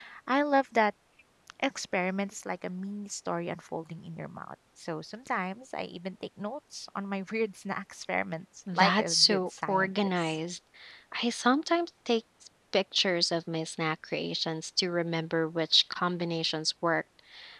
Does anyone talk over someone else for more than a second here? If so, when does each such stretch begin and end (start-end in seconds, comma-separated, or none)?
8.7-10.4